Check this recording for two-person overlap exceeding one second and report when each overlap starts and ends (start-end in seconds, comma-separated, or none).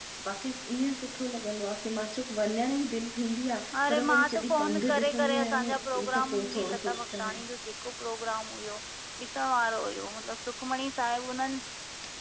3.9-5.7, 6.2-7.4